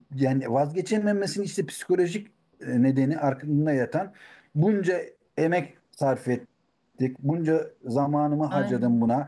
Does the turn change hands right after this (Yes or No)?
No